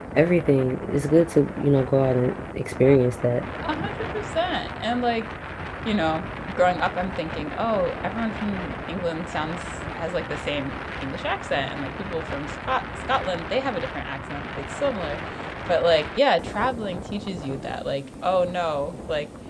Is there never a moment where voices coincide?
Yes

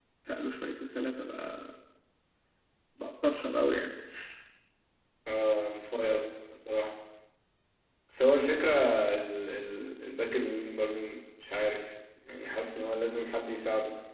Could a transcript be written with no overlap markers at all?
Yes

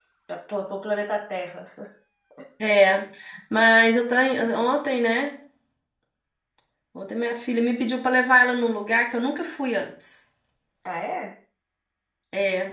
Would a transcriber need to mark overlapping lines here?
No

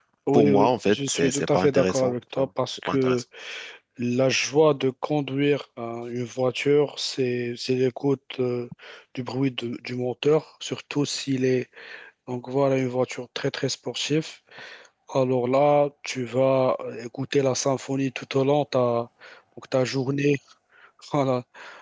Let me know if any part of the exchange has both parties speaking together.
Yes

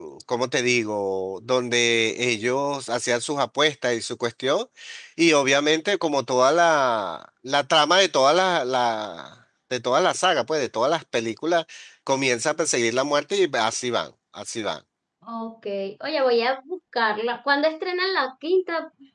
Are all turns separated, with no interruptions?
Yes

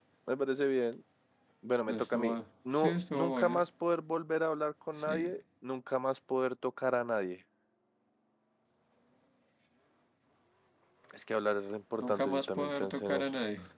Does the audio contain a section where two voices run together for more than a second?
Yes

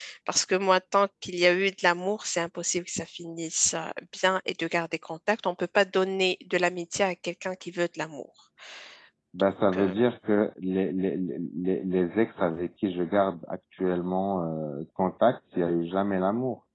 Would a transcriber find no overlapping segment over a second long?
Yes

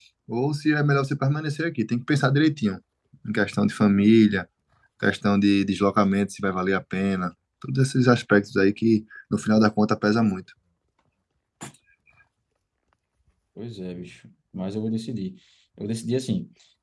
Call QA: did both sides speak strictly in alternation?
Yes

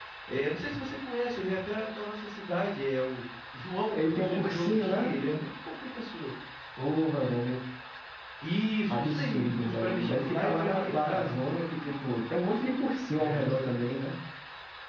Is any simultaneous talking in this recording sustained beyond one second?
Yes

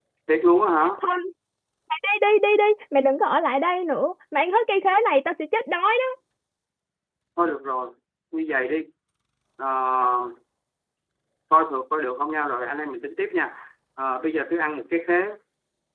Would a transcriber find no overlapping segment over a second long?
Yes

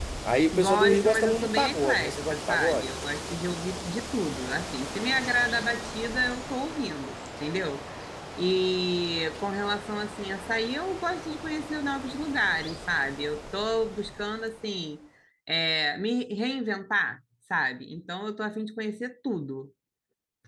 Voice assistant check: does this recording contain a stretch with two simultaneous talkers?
Yes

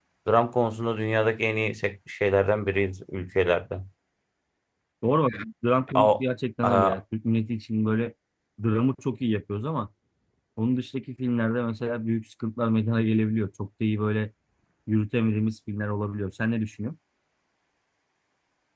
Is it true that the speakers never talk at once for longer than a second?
Yes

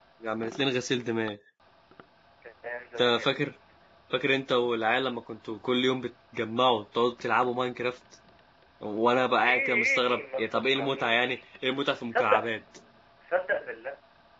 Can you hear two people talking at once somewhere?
Yes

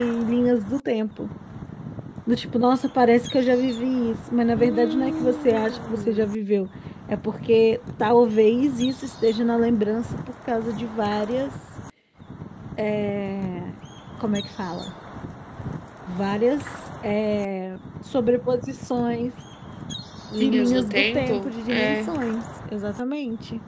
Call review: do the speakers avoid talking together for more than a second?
No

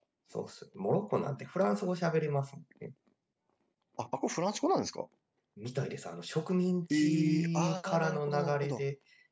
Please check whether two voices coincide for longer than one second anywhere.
Yes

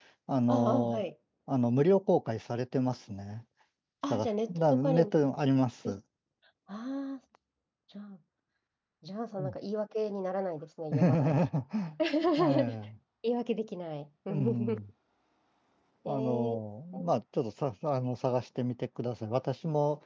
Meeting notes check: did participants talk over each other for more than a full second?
Yes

